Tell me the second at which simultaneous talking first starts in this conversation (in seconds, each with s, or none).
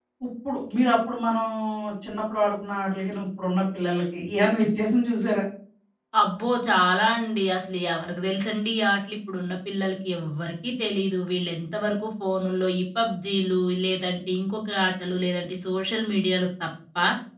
none